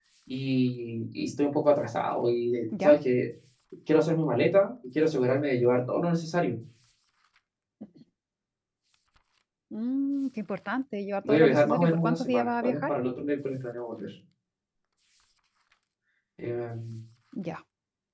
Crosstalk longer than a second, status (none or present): present